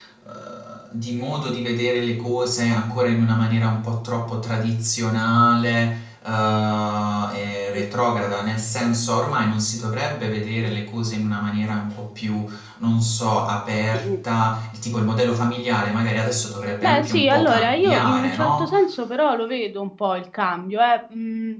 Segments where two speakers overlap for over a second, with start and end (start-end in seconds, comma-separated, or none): 16.8-18.7